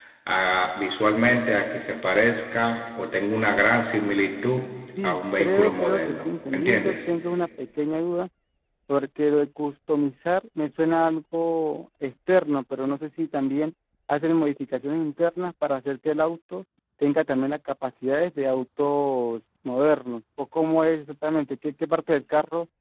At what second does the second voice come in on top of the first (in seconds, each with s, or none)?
5.0 s